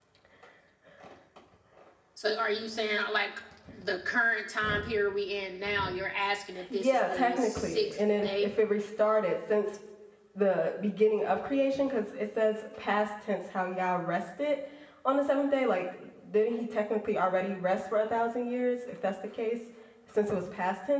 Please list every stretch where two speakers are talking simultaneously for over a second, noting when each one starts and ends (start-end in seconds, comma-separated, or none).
6.7-8.5